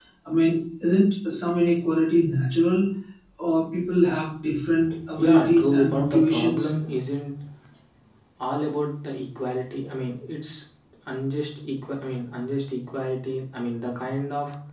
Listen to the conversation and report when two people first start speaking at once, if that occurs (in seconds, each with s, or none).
5.2 s